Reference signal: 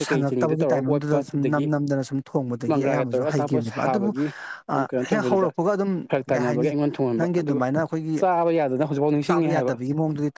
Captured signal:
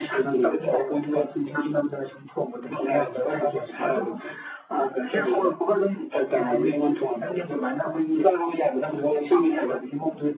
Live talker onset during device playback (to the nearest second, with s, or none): none